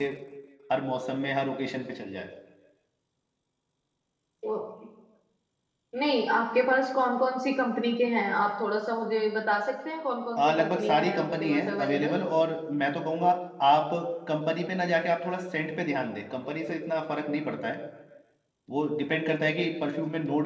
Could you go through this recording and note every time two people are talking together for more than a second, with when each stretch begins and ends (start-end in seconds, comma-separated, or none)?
10.4-12.2